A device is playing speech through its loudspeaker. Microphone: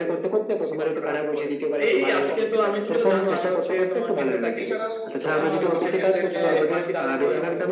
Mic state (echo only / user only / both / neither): both